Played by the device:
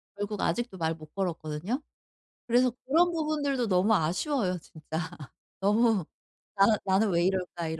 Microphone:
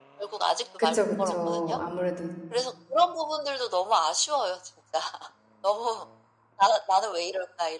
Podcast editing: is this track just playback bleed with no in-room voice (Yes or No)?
No